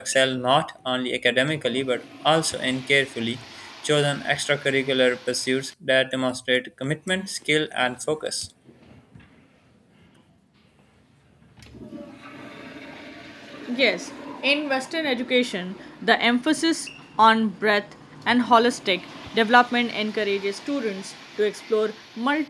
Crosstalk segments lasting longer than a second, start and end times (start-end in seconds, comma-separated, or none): none